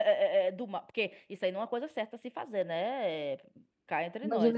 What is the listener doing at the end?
taking over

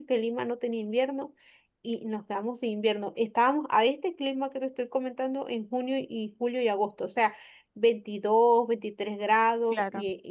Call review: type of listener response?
listening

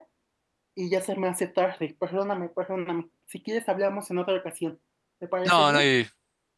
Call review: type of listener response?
taking over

